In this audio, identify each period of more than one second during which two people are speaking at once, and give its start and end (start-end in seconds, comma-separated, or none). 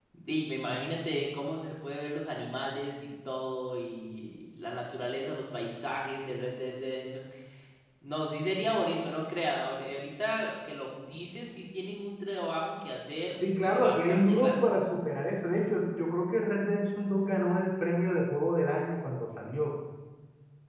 13.4-14.7